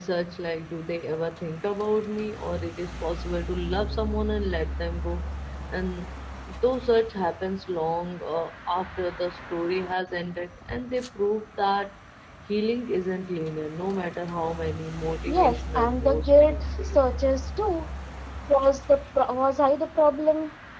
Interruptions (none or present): present